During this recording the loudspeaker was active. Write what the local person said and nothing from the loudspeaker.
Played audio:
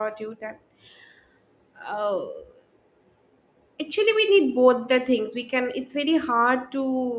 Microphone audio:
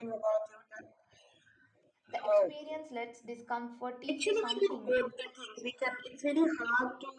The experience lets discomfort teach you something.

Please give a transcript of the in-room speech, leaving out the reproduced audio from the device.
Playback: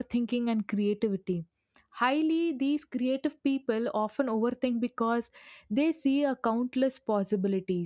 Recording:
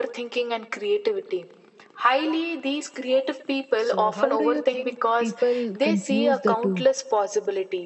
So, how do you think people confuse the two?

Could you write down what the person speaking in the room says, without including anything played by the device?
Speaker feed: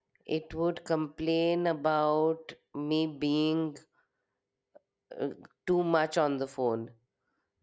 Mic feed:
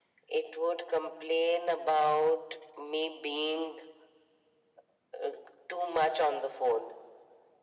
none

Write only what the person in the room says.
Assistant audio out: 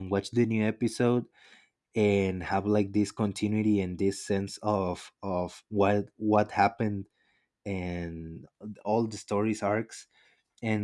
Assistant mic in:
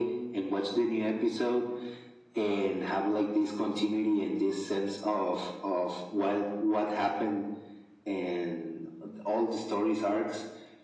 none

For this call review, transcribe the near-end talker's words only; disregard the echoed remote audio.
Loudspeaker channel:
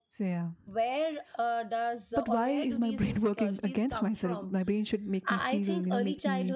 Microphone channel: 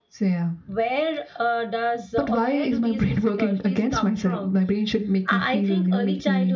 none

